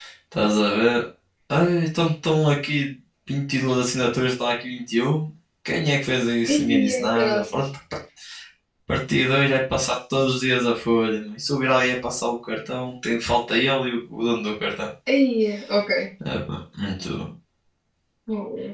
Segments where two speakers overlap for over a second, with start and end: 6.5-7.7

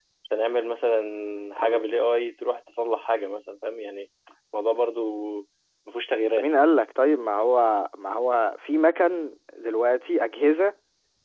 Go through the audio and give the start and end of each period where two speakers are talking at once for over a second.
none

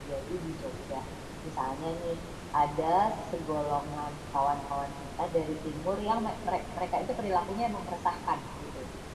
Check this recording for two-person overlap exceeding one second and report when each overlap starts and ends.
none

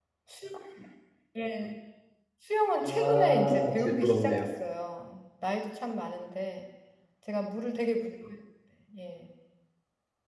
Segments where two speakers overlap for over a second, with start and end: 2.8-4.5

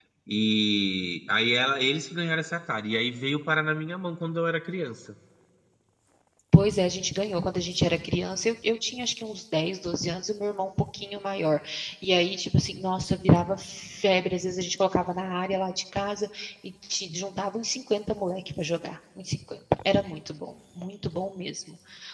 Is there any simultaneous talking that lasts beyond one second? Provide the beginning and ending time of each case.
none

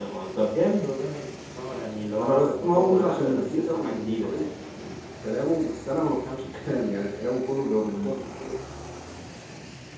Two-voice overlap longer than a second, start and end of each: 2.2-4.5

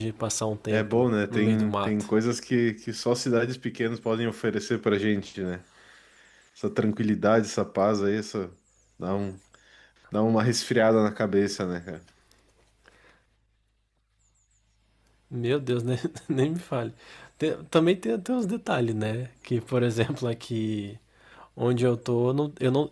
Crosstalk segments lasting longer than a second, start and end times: 0.7-2.0

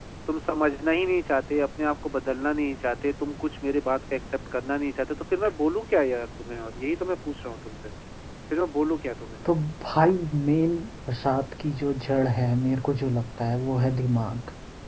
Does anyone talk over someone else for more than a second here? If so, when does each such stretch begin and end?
none

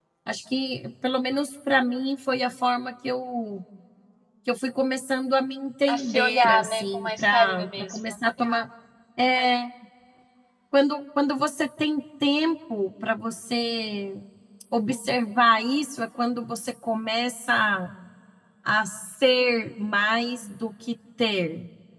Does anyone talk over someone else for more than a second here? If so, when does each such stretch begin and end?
5.9-8.0

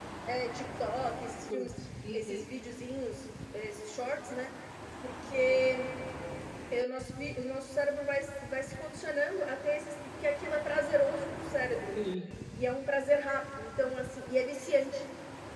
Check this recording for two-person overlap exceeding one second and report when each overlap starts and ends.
none

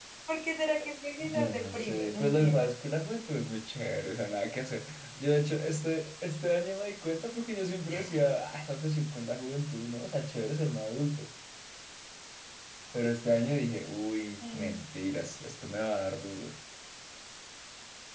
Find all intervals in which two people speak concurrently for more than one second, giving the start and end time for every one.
1.2-2.7

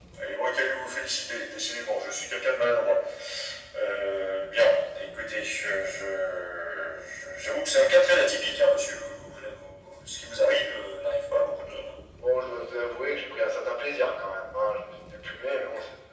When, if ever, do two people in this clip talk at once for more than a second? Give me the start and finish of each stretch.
none

